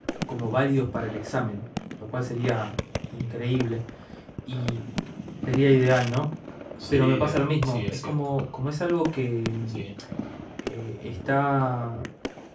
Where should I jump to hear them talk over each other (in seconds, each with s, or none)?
6.9 s